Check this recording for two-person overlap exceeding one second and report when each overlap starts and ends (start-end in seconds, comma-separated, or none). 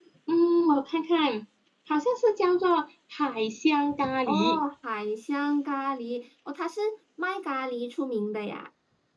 none